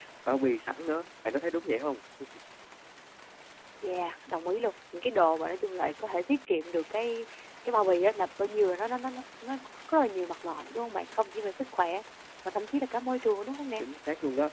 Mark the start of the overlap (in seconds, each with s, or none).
none